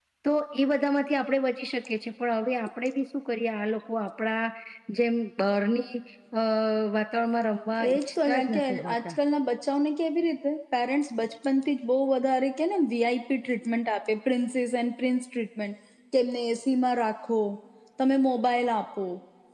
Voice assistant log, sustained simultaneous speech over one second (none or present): present